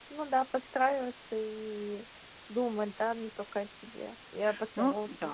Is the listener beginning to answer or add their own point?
Yes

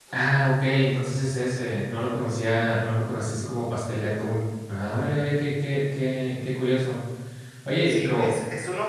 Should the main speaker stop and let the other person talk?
Yes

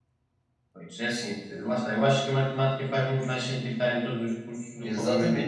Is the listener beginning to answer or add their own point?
Yes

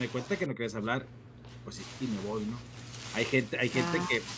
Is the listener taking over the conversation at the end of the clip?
No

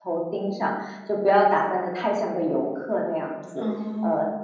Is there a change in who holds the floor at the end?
No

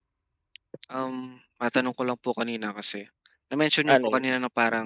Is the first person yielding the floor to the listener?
No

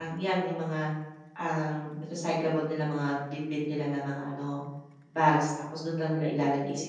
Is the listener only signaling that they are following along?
Yes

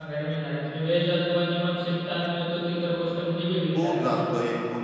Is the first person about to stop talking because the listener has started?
Yes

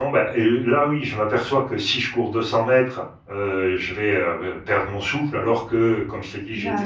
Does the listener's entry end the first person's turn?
No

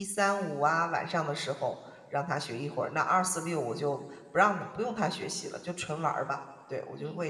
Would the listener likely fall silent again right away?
No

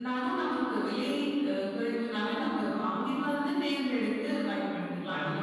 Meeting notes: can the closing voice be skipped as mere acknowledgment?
No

